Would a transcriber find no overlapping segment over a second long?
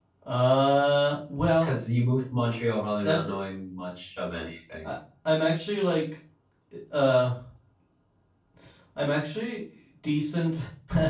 Yes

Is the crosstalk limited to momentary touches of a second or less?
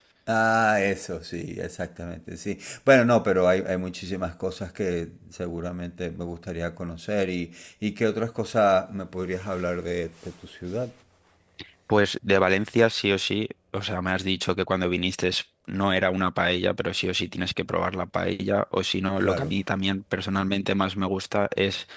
Yes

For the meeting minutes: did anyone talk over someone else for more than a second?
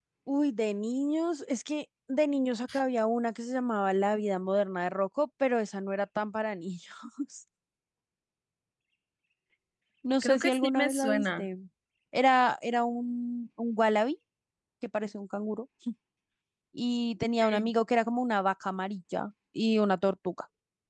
Yes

